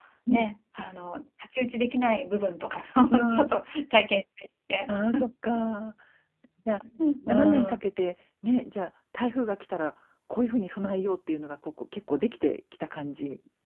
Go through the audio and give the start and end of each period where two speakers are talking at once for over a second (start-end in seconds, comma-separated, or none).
none